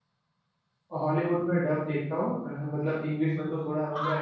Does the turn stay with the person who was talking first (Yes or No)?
No